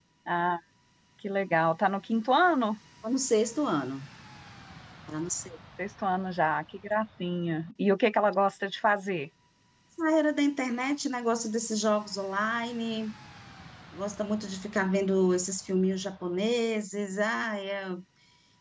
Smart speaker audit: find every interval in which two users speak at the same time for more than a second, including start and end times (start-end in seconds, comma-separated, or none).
none